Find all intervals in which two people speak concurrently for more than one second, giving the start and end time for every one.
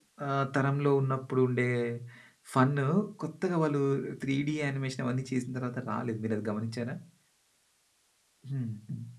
none

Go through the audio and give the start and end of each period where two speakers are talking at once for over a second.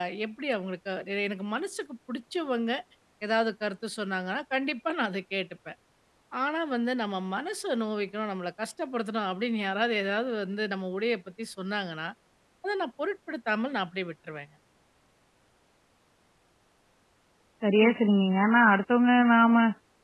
none

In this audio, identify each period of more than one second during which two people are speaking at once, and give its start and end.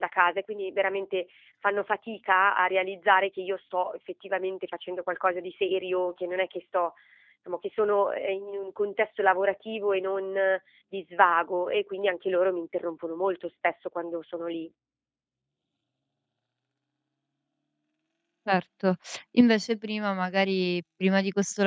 none

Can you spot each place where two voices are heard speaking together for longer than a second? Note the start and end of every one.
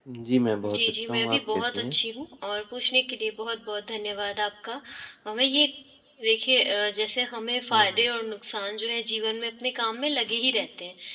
0.7-1.9

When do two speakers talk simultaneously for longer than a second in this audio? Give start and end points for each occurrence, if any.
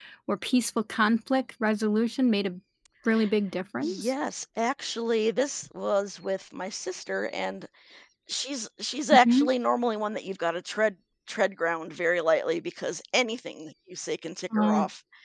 none

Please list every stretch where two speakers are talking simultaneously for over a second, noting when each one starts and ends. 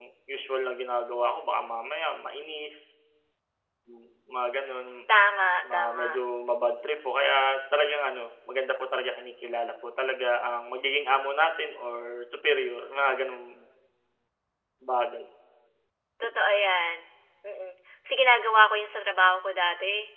none

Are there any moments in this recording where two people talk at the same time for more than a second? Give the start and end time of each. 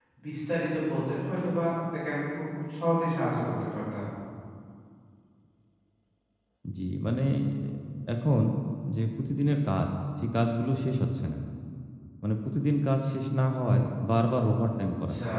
none

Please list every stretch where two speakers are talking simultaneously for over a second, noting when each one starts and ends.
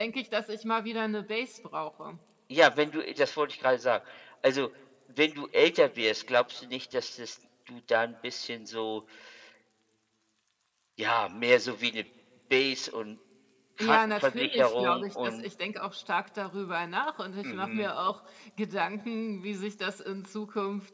13.8-15.5

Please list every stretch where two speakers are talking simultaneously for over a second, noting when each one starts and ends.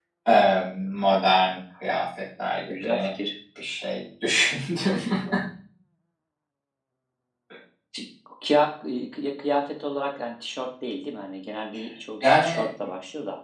none

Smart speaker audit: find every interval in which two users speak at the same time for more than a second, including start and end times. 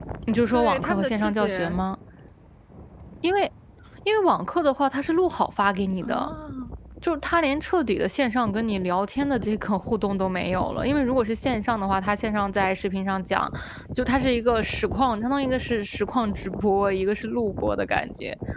0.5-1.7

